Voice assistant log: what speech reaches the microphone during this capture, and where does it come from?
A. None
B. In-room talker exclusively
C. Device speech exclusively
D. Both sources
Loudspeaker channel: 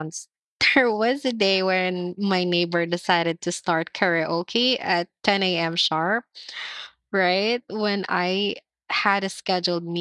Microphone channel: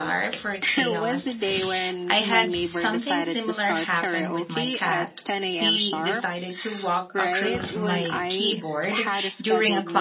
D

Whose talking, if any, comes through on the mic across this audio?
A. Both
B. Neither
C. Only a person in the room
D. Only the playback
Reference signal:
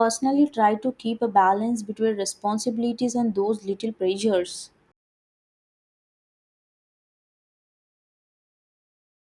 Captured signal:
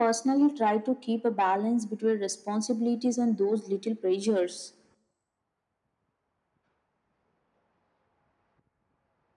D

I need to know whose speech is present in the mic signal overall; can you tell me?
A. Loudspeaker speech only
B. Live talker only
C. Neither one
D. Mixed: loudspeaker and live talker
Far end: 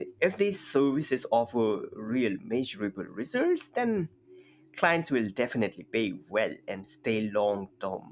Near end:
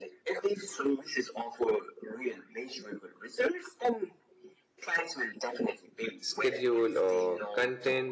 D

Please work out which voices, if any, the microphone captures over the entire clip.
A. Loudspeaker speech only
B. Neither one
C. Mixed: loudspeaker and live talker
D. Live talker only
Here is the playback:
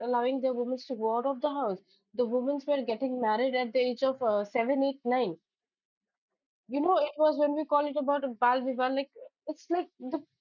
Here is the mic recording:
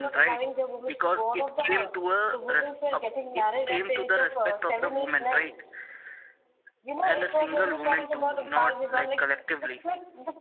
C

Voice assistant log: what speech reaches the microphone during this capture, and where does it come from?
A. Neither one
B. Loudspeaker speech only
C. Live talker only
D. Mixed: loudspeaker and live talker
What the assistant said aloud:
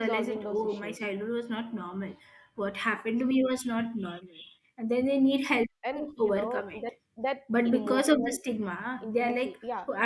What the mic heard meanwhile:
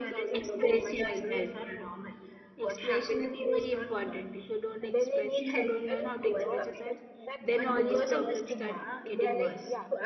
D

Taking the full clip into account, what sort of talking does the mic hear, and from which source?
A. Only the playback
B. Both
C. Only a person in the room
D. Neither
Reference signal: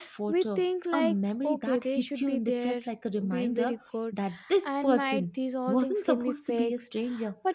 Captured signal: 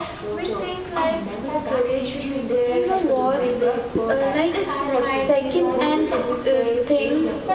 B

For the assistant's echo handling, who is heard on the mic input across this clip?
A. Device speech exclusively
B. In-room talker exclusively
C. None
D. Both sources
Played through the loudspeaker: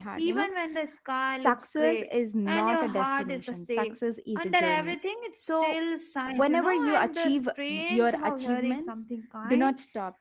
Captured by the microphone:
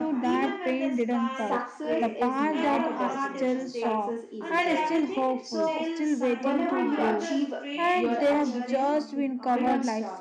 D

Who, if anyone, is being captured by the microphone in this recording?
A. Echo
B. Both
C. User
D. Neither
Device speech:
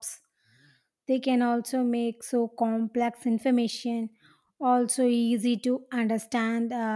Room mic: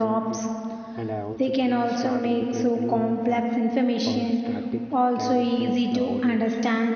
B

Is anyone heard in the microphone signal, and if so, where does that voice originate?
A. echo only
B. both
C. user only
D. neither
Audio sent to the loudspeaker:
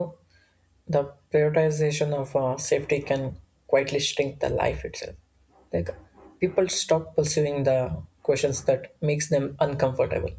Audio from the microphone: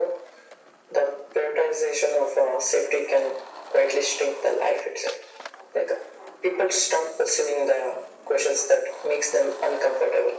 A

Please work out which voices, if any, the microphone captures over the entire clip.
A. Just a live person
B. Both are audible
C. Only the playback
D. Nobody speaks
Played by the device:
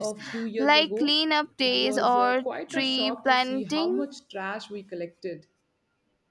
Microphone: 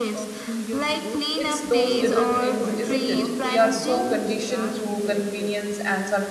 B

